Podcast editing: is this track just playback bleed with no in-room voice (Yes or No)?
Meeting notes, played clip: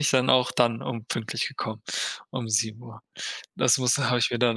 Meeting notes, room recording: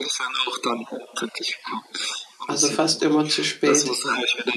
No